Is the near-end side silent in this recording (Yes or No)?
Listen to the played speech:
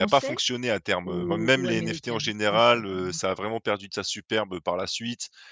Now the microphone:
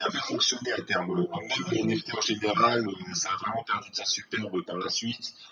Yes